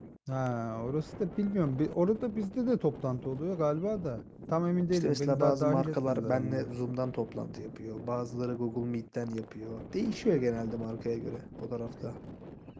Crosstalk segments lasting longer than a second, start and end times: 4.9-6.7

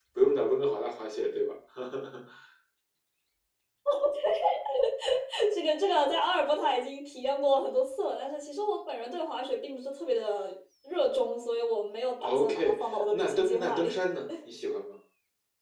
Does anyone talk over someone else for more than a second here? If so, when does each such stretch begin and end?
12.2-14.0

